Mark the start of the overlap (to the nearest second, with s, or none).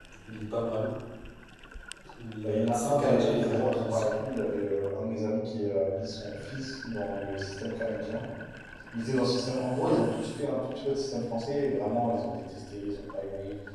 2 s